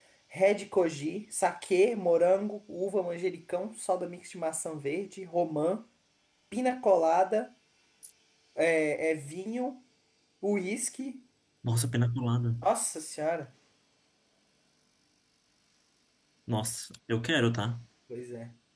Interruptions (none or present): none